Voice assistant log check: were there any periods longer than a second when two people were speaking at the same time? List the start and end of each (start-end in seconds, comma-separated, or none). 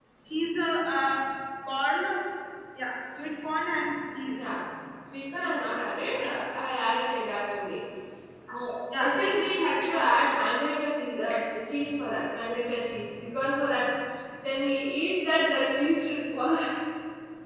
none